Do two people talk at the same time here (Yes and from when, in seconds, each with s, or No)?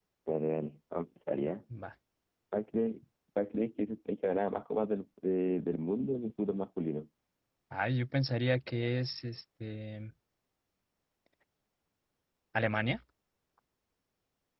No